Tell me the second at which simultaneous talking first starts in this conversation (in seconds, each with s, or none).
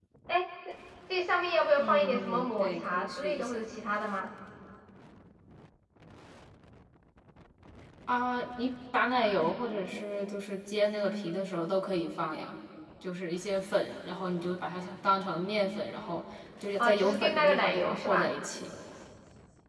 1.8 s